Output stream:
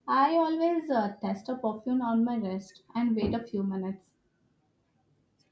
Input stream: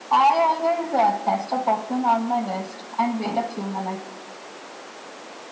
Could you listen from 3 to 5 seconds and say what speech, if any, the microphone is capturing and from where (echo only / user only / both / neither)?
echo only